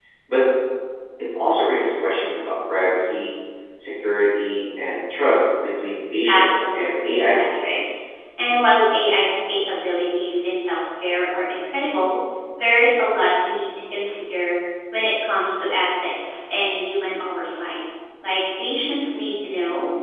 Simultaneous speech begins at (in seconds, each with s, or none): 6.3 s